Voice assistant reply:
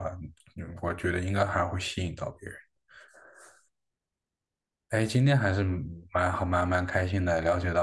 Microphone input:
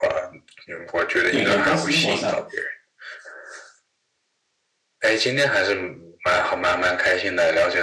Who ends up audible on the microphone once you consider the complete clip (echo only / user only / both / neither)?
both